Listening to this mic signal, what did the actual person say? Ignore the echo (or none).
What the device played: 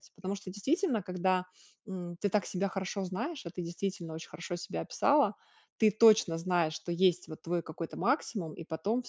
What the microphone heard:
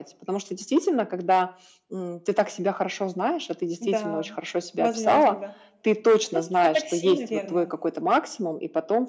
М-да, возможно, да. Ну, всё-таки, такси, наверно.